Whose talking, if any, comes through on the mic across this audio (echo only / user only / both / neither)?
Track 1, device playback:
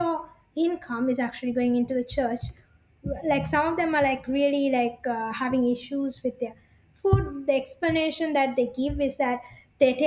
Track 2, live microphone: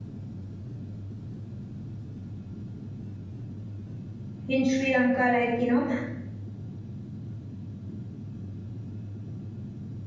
user only